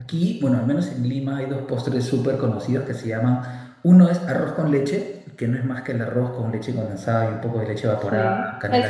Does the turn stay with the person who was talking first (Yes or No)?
No